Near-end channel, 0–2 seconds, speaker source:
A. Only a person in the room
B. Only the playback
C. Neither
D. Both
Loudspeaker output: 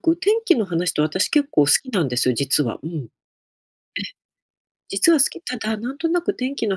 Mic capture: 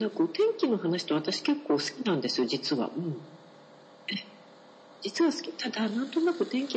B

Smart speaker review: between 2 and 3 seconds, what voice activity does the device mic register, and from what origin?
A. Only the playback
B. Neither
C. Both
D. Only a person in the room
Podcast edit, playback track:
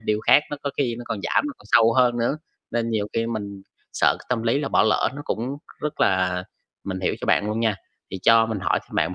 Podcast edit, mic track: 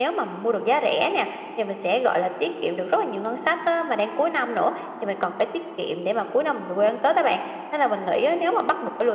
D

